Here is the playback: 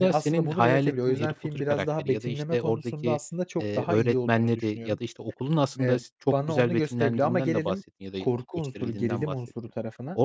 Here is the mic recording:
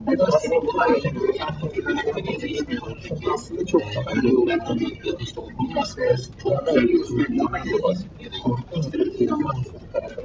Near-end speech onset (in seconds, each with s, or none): none